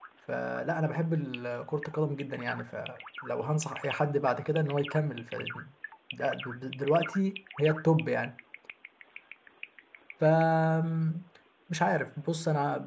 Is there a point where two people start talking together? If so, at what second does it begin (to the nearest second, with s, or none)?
none